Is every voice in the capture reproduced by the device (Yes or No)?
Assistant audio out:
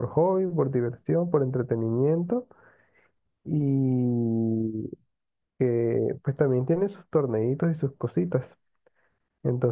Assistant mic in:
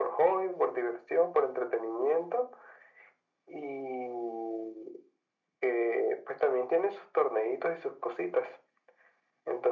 Yes